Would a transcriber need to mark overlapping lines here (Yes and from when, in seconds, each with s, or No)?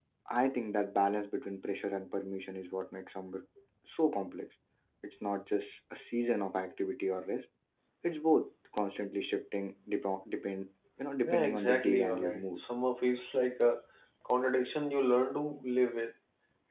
Yes, from 11.3 s